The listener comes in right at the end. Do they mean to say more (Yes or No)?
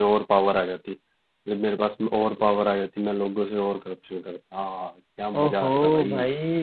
Yes